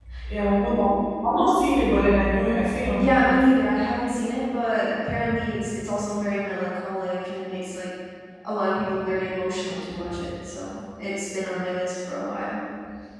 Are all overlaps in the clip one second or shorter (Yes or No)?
Yes